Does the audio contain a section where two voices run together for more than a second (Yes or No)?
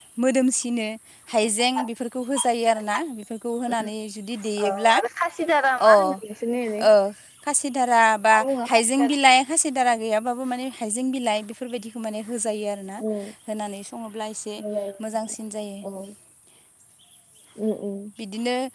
No